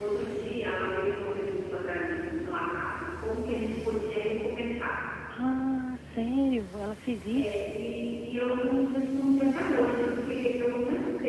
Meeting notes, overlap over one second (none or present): none